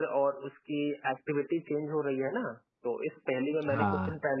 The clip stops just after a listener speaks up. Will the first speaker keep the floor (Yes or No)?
Yes